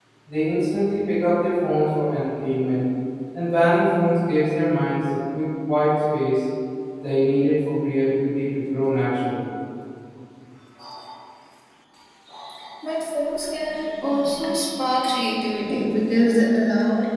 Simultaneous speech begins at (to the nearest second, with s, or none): none